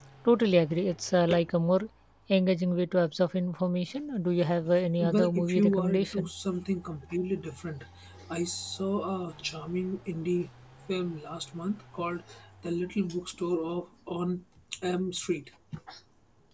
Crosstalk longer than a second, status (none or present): present